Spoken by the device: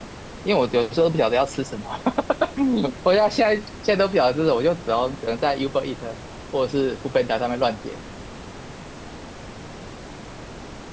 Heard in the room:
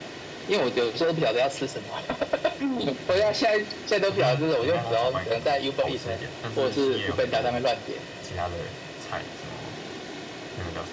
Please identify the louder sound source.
echo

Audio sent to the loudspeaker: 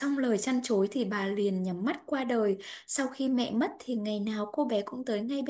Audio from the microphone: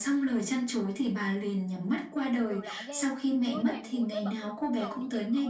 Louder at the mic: echo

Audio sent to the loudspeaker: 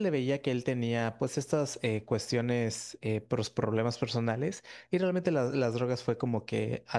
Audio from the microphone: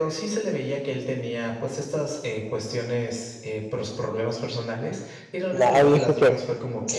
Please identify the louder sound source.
user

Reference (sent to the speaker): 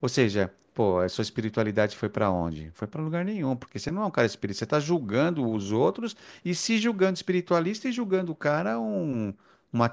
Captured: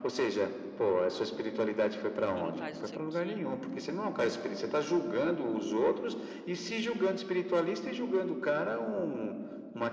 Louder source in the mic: echo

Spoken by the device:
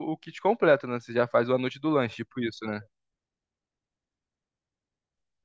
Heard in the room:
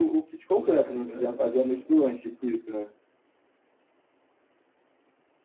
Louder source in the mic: echo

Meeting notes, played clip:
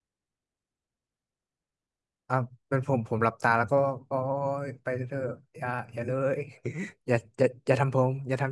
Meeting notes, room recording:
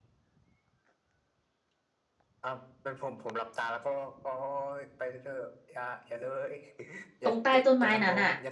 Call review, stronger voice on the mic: user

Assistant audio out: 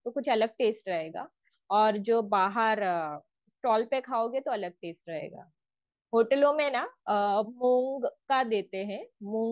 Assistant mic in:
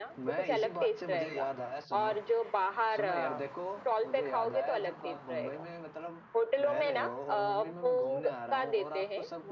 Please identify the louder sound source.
echo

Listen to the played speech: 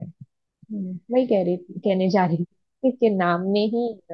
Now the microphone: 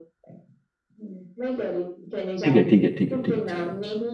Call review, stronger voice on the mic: user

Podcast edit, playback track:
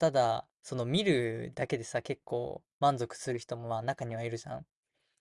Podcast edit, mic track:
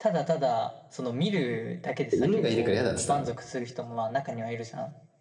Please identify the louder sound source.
user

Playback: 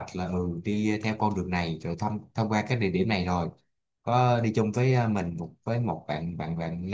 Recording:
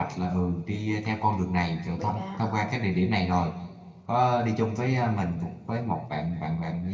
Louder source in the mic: echo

